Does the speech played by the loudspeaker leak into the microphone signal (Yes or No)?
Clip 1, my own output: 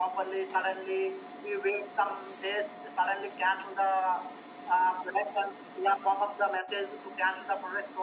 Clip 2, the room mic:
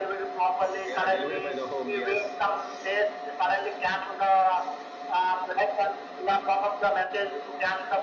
Yes